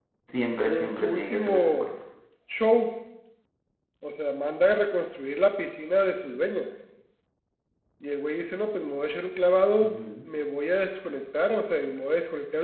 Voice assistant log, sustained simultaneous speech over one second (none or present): present